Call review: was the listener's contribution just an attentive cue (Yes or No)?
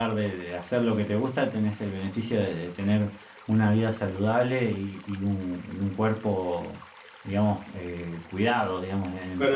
No